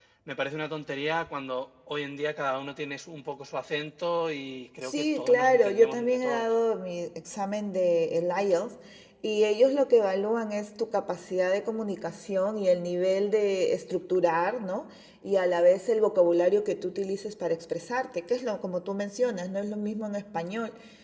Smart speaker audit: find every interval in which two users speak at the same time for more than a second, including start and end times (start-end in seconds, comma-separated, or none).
4.8-6.5